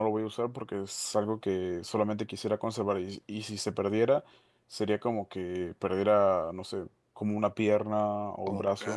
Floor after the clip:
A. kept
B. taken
A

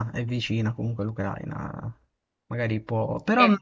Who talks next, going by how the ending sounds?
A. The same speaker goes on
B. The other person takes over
A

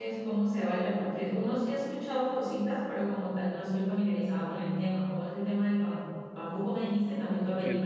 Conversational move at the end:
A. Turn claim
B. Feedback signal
A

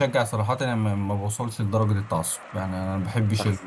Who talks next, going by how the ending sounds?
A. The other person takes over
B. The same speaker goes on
B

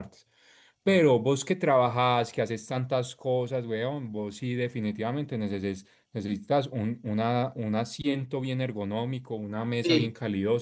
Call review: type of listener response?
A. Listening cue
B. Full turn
A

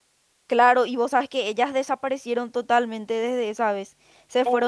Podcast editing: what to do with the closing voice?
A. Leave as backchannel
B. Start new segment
A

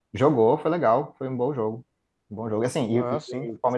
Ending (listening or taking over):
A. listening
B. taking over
A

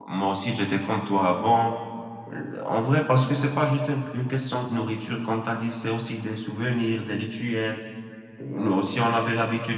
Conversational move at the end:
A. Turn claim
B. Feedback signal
B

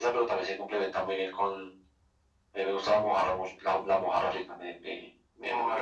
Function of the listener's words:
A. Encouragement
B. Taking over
A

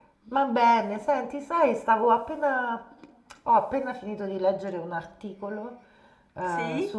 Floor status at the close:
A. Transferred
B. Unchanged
B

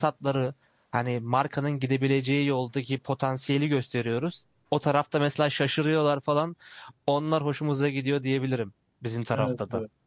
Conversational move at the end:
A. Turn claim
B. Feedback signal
A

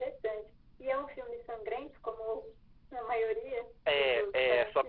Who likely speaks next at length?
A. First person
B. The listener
B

